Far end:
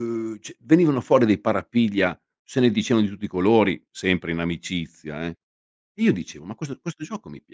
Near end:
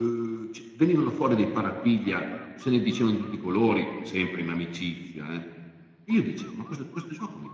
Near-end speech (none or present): none